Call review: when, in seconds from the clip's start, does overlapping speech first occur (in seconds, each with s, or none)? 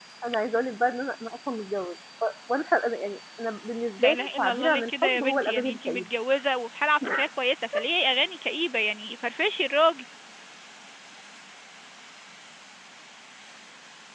4.0 s